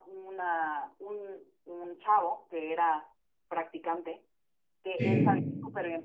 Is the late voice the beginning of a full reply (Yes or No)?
No